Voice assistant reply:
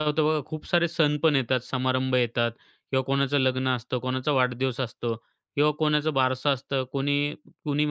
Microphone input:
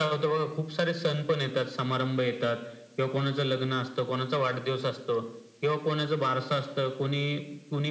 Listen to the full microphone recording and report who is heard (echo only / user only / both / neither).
echo only